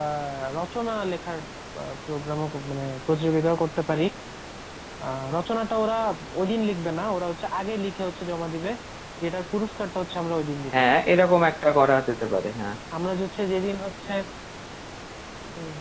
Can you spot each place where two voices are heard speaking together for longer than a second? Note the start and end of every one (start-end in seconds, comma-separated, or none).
none